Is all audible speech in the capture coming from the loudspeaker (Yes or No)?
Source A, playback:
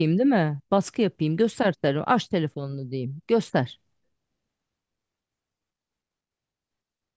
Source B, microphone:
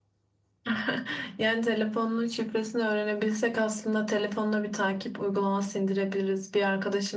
No